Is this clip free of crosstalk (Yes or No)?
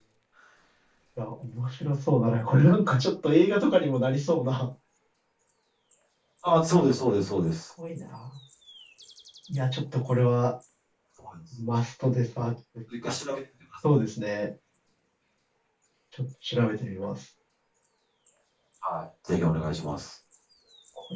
Yes